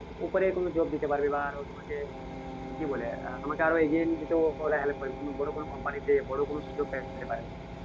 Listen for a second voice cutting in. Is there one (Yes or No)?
No